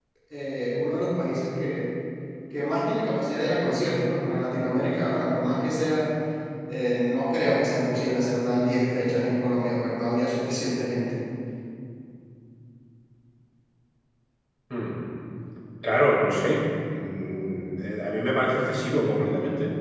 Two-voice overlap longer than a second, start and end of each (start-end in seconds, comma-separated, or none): none